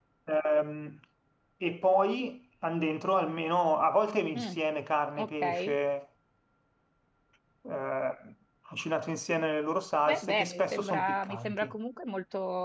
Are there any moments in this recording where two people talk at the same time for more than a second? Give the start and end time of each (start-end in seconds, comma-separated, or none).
10.1-11.7